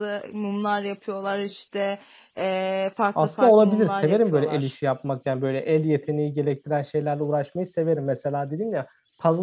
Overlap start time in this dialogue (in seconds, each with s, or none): 3.2 s